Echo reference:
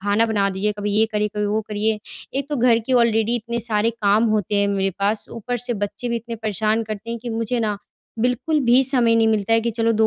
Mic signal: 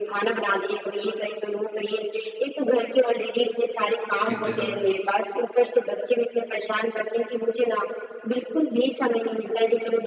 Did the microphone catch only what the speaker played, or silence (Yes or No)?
No